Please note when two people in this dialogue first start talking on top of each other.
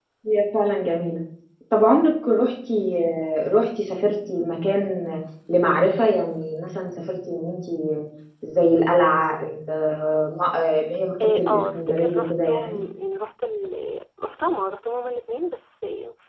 11.2 s

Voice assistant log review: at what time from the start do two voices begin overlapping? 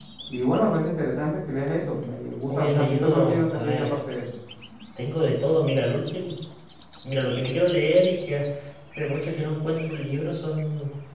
2.5 s

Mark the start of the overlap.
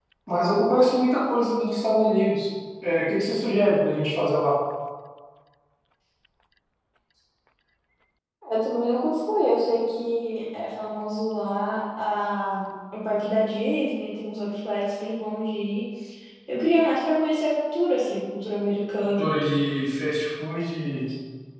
none

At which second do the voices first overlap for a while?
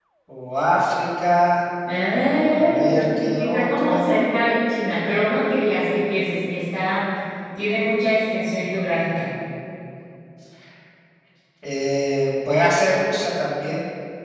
2.1 s

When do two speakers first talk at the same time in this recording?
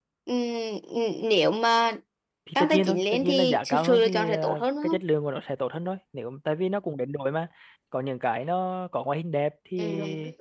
2.6 s

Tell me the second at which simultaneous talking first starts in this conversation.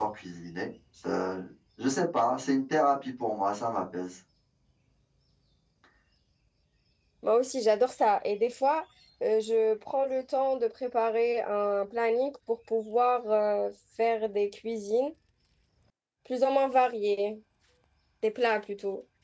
none

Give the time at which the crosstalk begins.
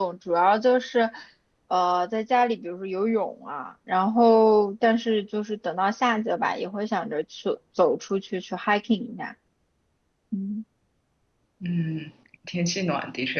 none

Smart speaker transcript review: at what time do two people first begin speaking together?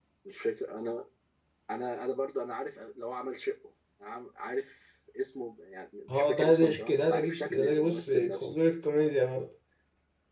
6.1 s

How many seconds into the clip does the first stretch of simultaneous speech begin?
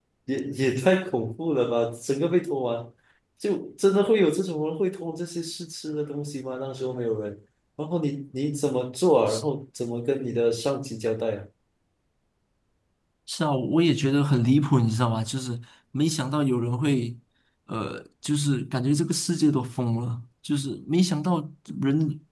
none

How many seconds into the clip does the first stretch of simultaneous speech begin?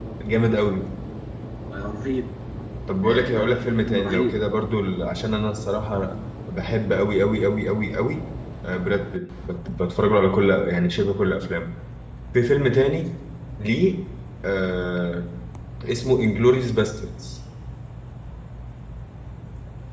3.0 s

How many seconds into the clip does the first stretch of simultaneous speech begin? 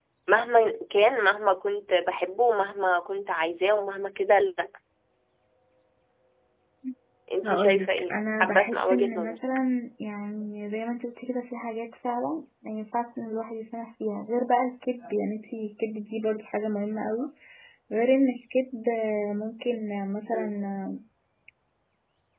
7.5 s

